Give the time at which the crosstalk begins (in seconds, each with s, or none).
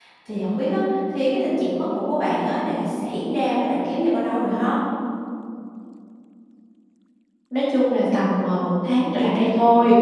none